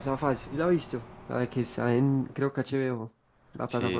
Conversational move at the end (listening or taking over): taking over